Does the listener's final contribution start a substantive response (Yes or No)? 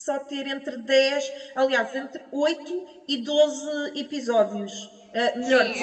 Yes